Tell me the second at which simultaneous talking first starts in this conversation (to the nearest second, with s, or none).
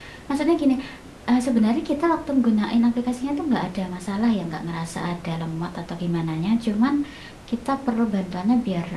none